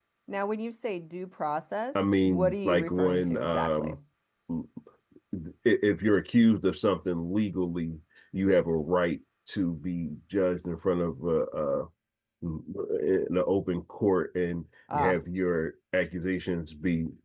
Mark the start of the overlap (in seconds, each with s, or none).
1.9 s